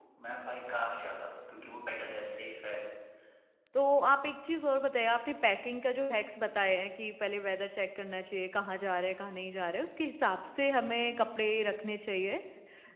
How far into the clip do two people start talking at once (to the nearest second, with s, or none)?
none